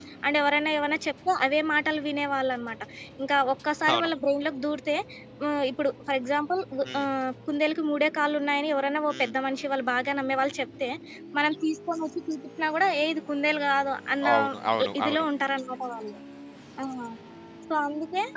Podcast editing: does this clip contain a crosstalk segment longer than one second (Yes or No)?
No